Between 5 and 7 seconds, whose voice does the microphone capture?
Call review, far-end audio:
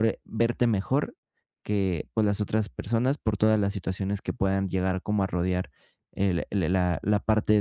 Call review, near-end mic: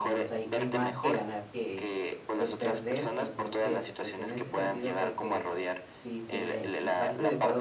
both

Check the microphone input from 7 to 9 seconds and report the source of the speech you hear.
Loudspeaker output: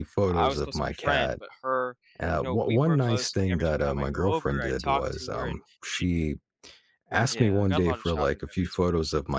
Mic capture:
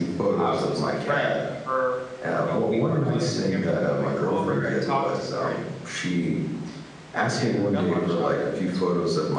echo only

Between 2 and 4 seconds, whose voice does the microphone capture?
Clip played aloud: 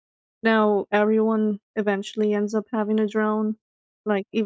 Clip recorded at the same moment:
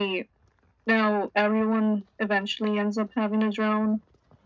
echo only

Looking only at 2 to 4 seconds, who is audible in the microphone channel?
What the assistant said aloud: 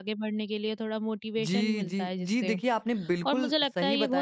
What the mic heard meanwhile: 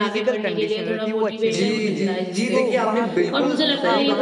both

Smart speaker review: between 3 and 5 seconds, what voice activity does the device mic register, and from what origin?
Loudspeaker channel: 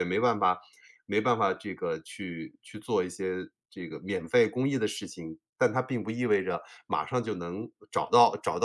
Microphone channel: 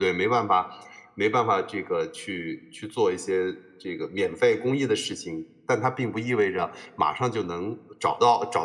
echo only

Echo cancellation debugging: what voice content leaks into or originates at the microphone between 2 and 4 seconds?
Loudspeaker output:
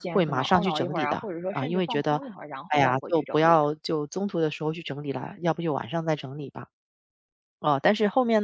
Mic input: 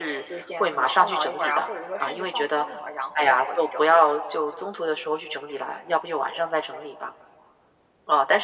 echo only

